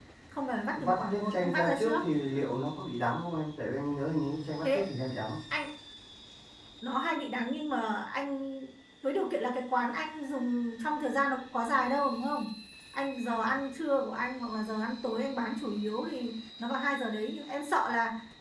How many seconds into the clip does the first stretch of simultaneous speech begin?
0.8 s

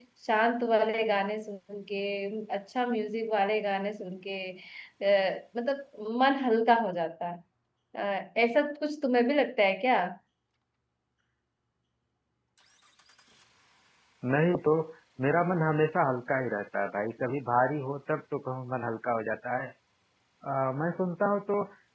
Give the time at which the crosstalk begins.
none

